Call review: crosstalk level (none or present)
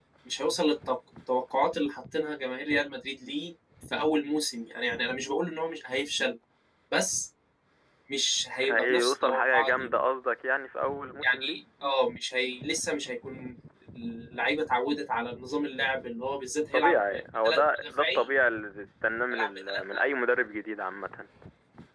present